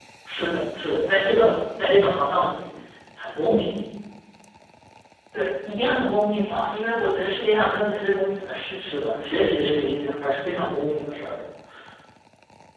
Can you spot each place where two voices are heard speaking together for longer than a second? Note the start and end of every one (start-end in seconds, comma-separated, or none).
none